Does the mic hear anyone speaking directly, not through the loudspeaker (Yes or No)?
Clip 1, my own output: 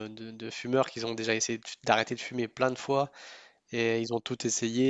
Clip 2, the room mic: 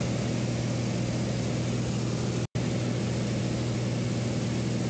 No